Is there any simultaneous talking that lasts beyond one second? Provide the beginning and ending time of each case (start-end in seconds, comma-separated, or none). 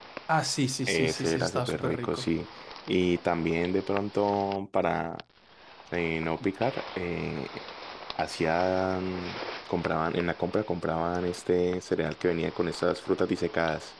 0.9-2.3